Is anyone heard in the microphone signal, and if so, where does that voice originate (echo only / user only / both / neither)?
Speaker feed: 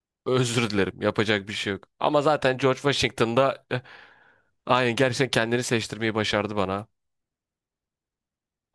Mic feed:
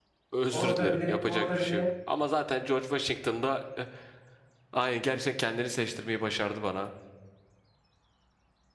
both